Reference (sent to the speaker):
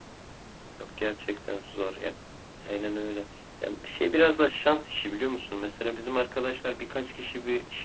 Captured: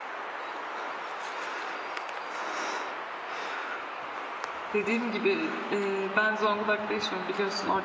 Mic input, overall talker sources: user only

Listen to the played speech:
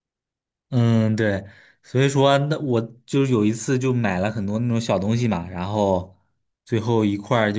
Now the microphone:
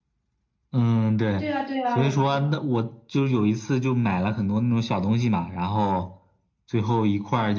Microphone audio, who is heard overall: both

